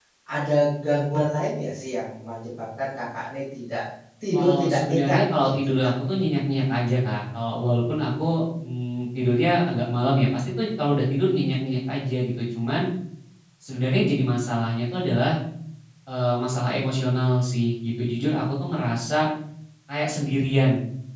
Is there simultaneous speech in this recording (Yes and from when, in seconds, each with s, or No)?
Yes, from 4.3 s